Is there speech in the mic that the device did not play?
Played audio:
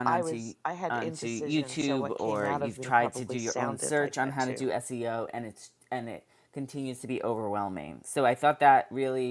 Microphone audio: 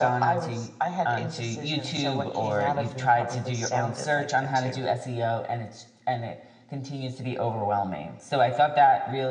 No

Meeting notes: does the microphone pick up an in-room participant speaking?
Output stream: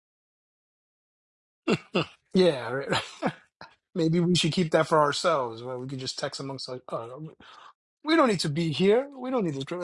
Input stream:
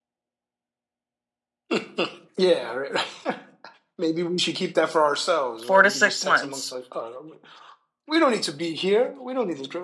Yes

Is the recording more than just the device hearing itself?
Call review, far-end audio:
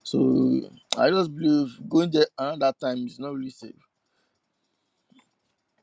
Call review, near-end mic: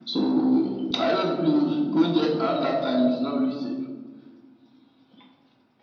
No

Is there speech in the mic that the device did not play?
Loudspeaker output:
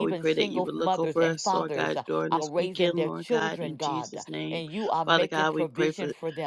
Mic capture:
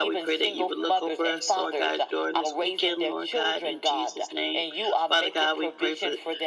No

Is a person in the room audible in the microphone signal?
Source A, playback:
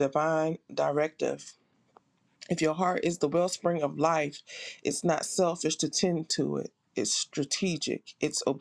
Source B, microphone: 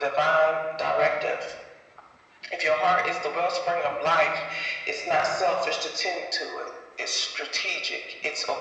No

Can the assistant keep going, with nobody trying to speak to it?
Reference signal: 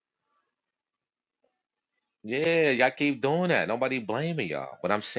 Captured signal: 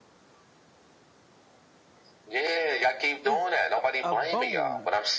No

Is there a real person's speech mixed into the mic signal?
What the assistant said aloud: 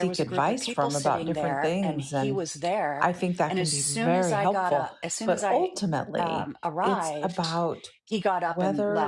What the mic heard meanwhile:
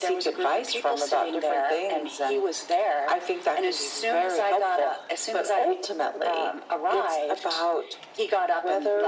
No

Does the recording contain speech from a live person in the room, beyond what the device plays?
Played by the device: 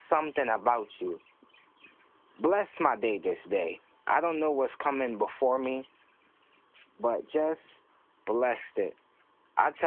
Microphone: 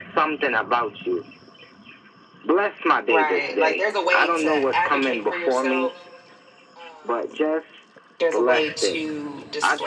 Yes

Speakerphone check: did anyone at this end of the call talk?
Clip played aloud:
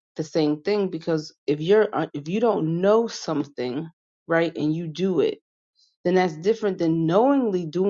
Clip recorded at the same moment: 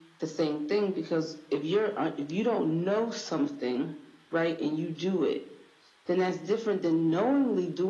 No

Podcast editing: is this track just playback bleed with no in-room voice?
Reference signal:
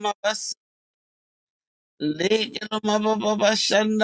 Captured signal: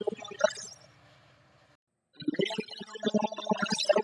Yes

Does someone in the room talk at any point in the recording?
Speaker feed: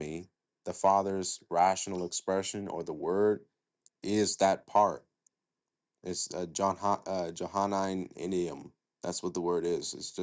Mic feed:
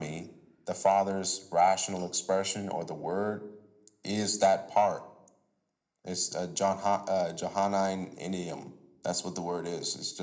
No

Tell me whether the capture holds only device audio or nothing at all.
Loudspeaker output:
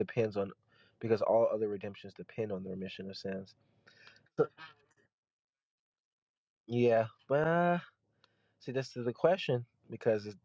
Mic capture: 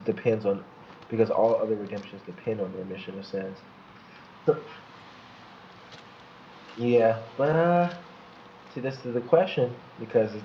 Yes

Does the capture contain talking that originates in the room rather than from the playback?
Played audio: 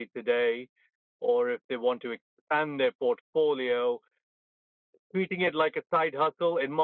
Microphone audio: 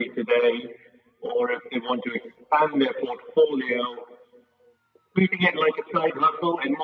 No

